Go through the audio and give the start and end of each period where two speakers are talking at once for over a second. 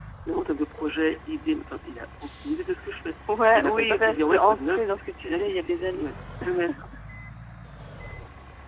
3.5-6.1

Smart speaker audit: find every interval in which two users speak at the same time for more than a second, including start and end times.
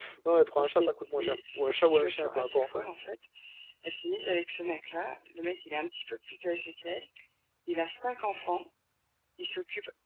0.6-2.9

